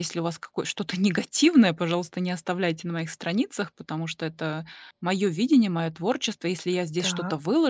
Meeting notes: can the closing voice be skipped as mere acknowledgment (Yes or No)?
Yes